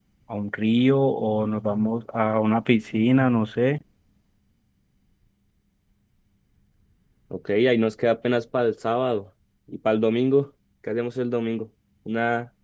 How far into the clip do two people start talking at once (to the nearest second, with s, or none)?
none